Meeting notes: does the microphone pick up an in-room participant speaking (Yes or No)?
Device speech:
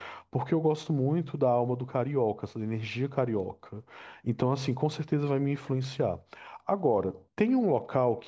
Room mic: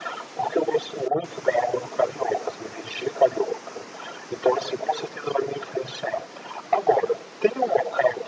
No